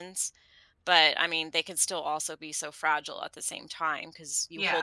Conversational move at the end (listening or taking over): listening